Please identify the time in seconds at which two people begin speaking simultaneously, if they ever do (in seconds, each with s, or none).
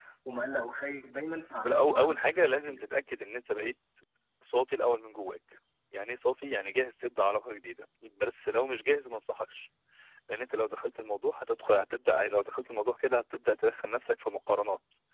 1.5 s